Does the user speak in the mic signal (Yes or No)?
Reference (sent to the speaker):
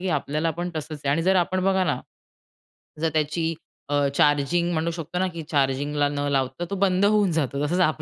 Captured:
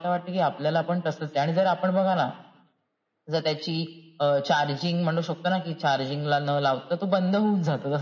No